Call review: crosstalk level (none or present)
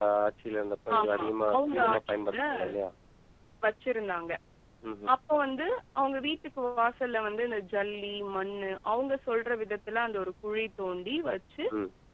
present